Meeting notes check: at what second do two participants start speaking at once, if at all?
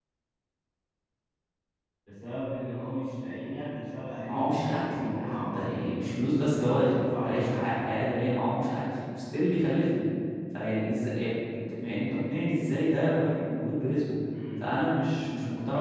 4.2 s

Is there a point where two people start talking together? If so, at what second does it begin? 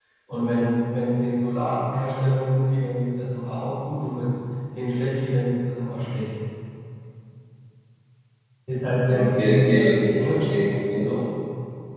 9.1 s

